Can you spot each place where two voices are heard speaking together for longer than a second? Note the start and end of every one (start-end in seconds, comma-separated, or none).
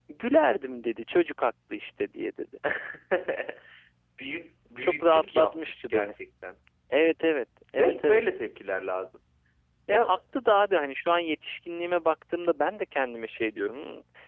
4.8-6.1